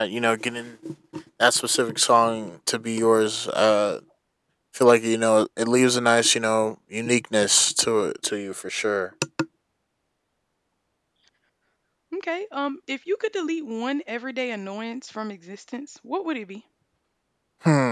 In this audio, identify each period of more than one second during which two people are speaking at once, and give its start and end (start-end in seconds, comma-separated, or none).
none